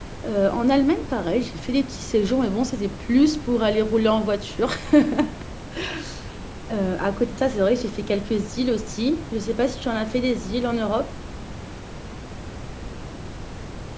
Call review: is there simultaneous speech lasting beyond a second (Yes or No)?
No